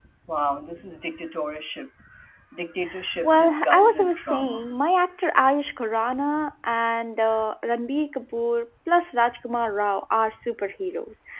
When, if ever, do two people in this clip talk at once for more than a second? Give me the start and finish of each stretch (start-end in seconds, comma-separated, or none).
3.2-4.8